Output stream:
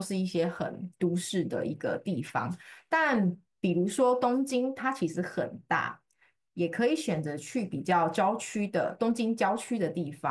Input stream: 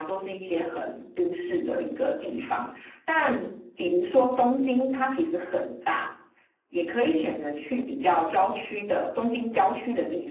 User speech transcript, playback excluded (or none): none